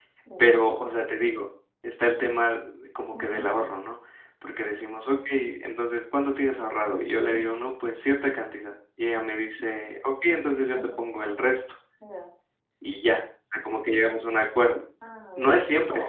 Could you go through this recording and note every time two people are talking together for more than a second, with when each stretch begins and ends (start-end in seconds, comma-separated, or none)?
none